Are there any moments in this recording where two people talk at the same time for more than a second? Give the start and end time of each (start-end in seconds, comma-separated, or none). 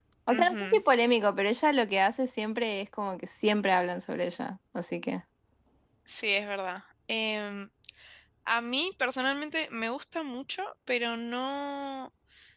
none